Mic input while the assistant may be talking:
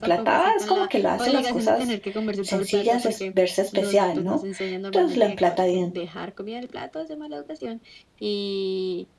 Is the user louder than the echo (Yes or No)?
Yes